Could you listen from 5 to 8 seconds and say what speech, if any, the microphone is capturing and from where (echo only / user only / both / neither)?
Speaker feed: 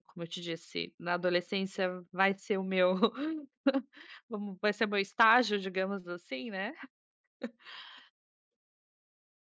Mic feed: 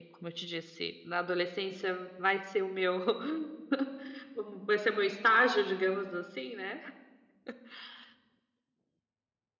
echo only